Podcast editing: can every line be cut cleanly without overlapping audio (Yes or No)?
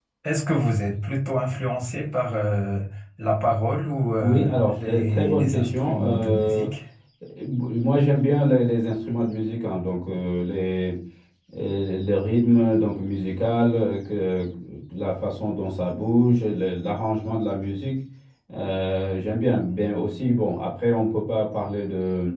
No